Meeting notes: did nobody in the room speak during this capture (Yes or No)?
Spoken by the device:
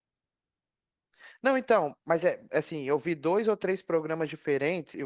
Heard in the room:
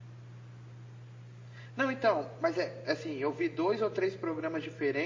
Yes